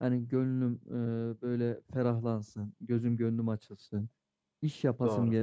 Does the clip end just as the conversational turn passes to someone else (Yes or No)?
No